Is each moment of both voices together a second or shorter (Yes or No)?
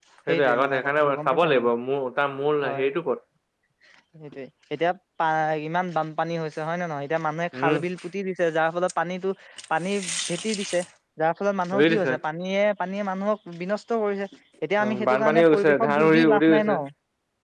No